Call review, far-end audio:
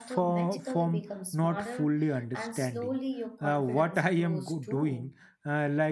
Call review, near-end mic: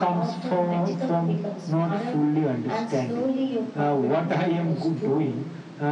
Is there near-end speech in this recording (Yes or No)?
No